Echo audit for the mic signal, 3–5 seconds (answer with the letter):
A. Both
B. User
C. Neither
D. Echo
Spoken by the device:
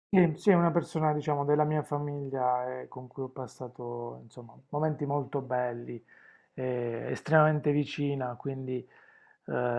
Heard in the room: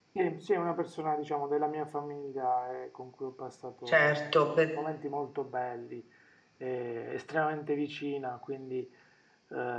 A